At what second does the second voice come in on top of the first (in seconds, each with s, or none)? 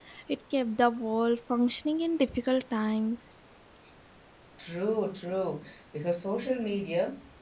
none